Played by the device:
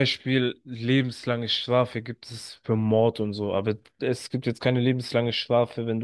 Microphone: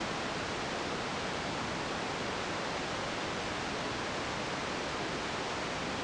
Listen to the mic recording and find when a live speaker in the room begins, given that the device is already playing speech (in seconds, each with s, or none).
none